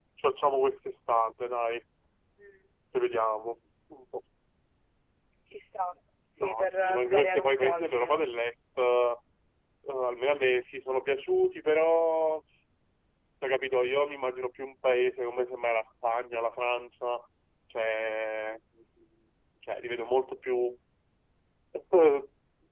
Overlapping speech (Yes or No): Yes